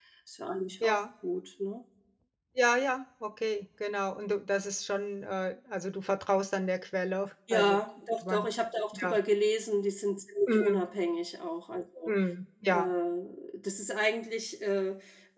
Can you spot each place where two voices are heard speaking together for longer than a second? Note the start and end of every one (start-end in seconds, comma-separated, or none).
none